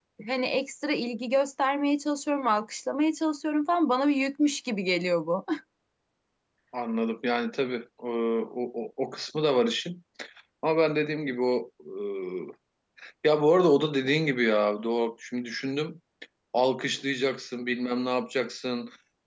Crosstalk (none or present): none